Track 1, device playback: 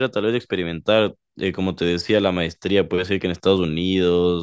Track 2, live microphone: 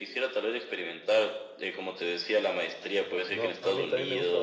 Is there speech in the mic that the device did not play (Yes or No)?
Yes